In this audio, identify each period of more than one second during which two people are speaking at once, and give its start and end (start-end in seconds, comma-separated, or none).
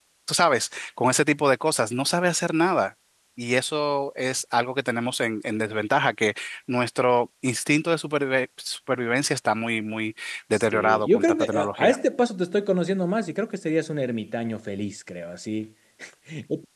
10.5-12.0